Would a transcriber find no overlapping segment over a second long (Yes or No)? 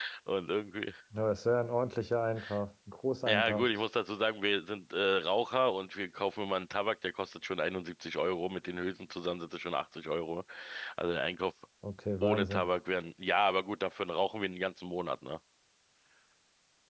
Yes